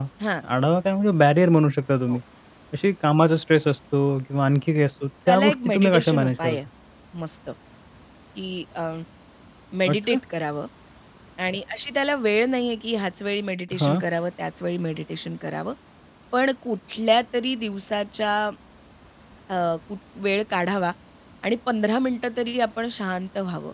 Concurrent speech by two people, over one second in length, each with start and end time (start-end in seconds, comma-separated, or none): 5.3-6.6